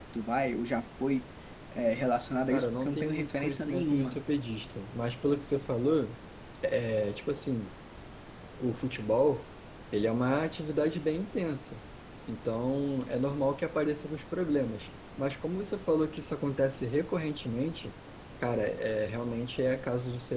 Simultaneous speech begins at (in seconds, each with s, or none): 2.5 s